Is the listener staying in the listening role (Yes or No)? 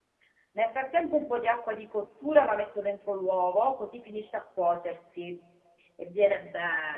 Yes